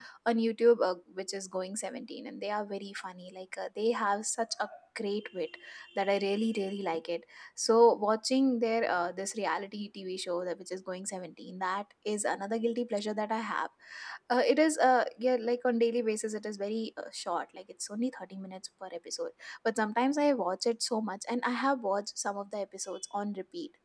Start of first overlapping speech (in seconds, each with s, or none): none